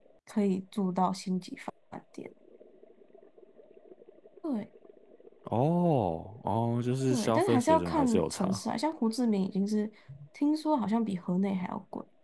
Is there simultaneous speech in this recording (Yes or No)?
Yes